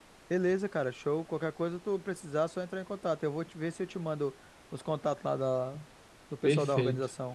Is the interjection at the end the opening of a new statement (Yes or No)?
Yes